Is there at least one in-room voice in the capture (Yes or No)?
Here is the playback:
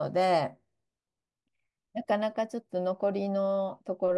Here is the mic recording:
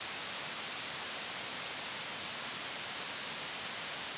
No